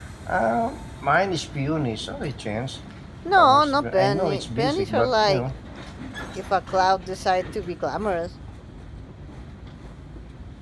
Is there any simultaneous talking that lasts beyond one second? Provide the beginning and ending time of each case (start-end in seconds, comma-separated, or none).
3.4-5.4